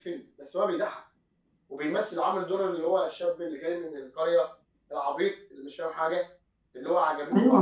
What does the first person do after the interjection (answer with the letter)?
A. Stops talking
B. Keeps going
A